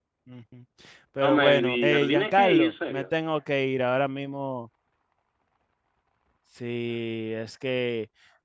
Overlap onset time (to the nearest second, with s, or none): 1 s